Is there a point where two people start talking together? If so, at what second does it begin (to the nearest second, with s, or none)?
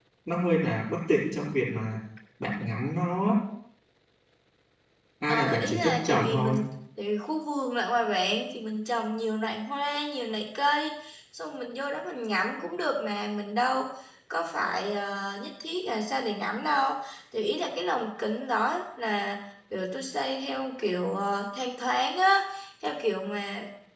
5 s